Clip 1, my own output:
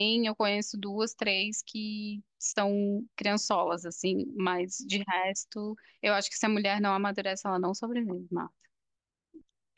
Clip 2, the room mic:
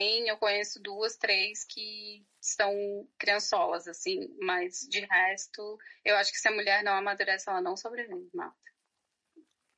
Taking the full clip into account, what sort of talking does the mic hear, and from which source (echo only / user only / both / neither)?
echo only